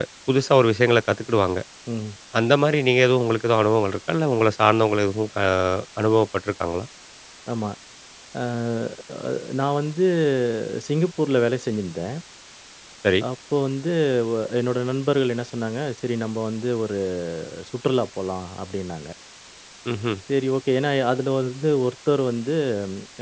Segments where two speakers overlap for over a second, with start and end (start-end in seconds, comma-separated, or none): none